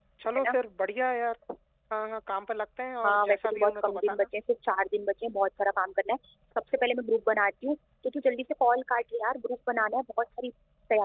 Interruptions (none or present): present